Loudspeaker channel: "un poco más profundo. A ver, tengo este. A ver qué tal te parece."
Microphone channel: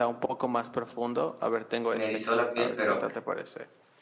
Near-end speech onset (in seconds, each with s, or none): 1.9 s